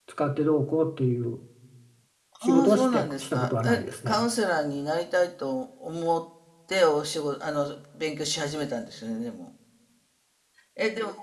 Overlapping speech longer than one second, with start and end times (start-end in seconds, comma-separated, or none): 2.4-4.3